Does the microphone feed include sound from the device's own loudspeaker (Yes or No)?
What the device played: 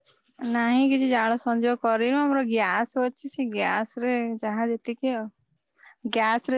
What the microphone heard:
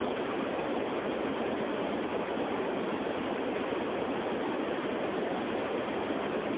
No